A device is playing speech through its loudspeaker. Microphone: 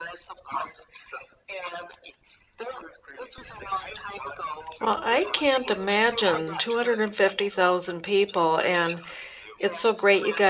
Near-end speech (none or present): present